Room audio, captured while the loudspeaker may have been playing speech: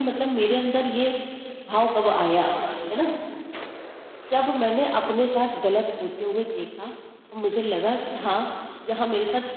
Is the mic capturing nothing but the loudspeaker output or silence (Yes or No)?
Yes